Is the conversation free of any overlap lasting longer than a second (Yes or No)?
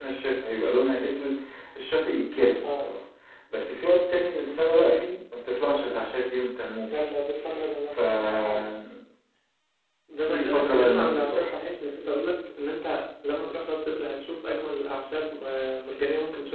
No